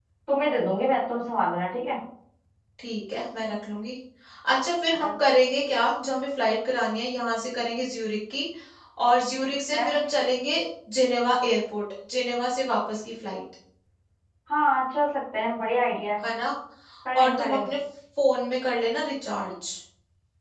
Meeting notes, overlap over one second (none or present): none